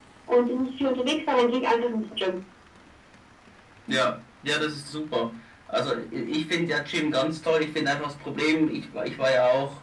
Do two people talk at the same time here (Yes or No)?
No